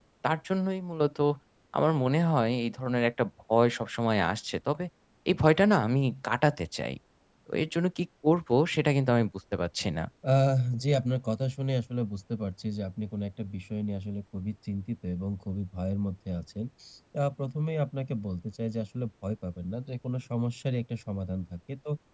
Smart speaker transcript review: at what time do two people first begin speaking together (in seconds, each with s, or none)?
none